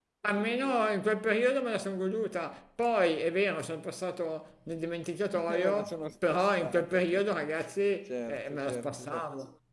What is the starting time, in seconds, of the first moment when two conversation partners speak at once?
5.3 s

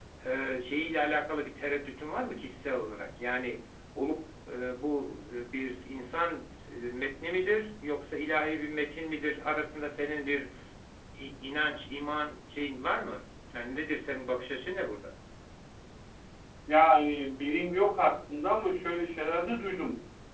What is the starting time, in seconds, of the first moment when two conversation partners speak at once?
none

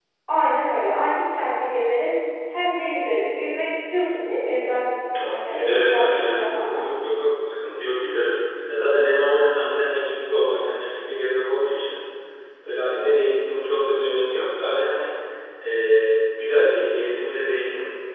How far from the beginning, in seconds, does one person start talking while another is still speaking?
5.1 s

